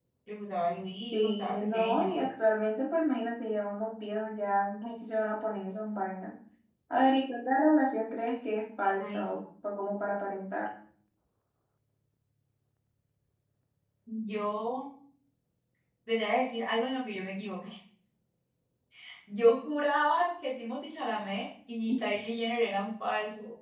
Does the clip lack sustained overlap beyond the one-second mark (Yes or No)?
No